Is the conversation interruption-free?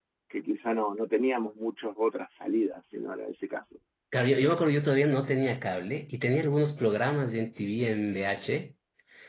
Yes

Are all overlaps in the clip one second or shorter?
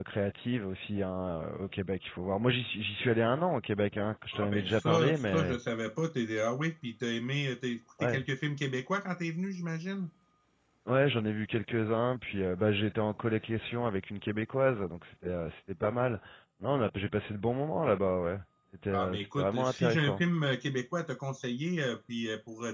No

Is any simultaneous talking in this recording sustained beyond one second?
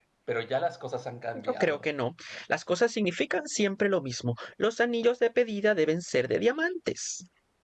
No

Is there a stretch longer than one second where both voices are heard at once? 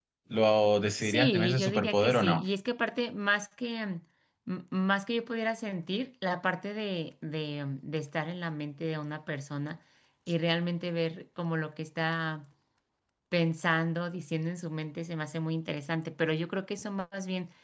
Yes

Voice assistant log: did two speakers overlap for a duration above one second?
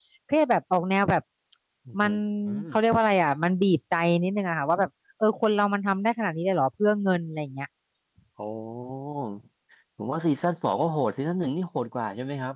No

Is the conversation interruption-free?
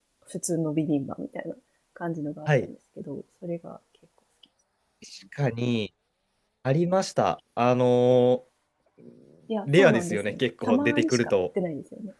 No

